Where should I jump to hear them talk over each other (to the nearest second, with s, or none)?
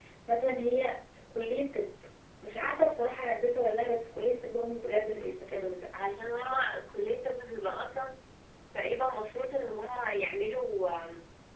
none